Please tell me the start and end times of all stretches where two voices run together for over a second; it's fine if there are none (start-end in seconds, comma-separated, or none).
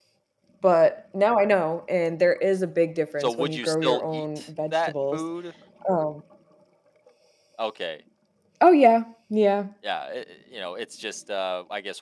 3.2-5.2